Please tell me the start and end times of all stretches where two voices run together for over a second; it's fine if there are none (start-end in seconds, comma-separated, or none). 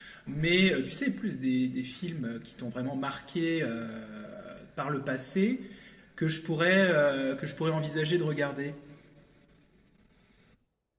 none